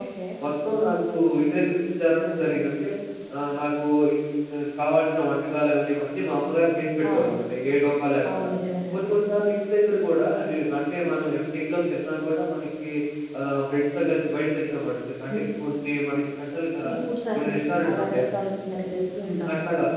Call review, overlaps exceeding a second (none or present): none